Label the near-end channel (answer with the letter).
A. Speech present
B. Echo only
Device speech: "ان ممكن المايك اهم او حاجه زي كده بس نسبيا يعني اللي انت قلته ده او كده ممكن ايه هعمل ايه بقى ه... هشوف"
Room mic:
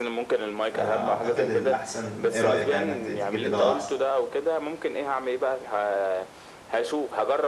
A